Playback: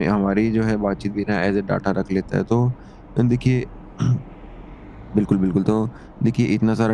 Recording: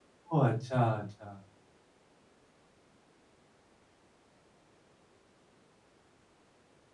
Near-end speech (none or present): present